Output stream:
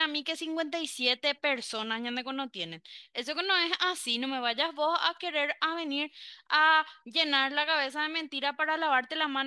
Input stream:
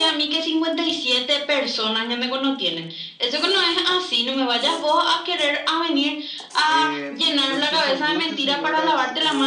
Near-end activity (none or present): present